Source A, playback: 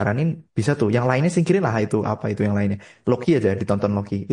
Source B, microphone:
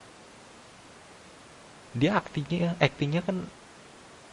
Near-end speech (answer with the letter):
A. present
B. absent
A